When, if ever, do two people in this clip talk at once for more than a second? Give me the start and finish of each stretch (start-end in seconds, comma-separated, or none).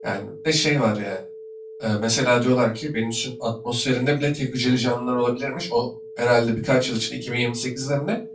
none